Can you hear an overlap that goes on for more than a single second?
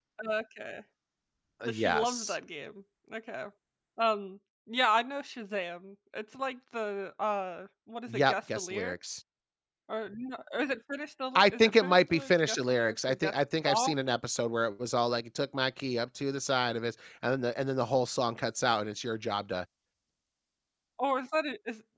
Yes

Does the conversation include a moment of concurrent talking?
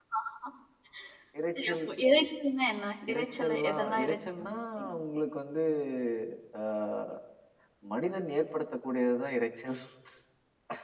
Yes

